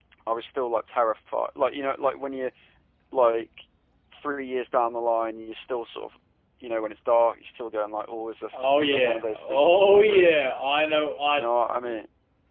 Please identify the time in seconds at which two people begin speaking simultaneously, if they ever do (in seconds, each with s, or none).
8.5 s